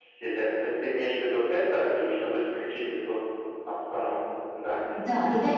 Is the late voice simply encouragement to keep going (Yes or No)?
No